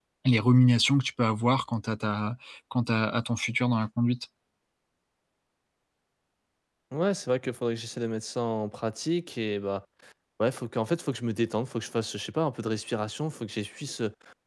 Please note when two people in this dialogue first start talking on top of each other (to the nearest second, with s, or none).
none